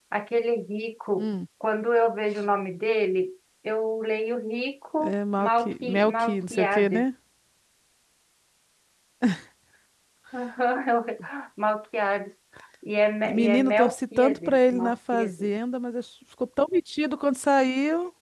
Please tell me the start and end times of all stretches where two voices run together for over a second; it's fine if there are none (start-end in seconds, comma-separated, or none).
5.0-7.0, 13.2-15.5